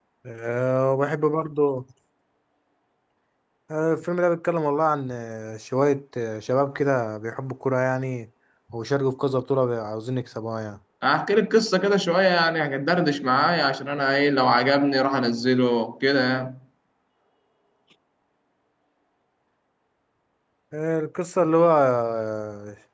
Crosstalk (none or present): none